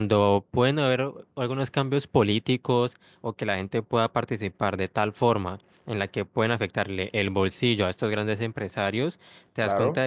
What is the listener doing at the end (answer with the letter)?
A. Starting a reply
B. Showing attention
B